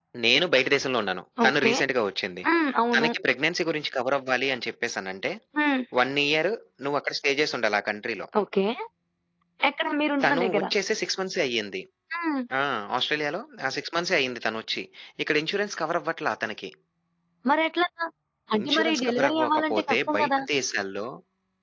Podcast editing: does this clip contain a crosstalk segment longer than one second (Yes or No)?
Yes